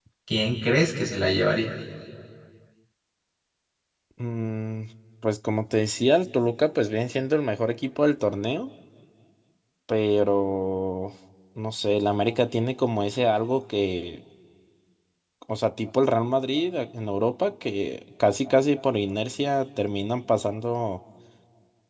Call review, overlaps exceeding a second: none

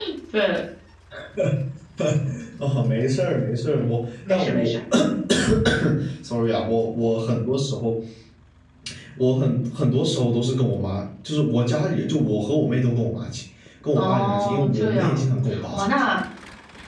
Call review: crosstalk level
present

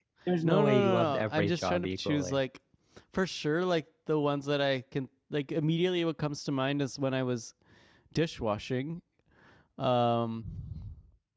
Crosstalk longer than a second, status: present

